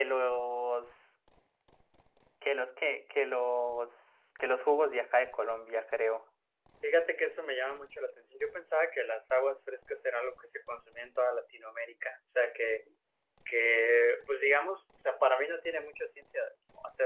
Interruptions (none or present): none